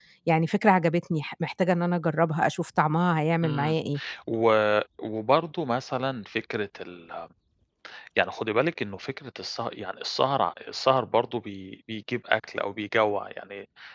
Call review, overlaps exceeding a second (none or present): none